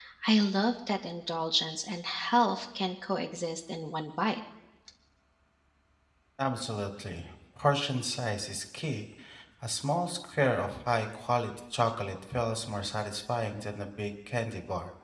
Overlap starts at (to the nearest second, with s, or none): none